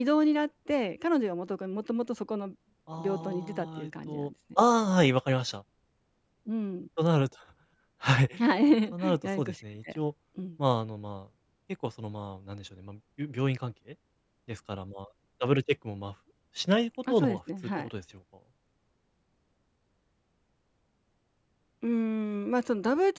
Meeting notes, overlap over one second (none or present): present